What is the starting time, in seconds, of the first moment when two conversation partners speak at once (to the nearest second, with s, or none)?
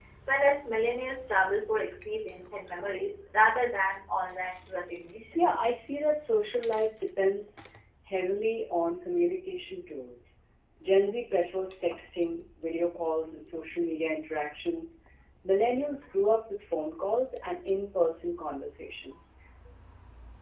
none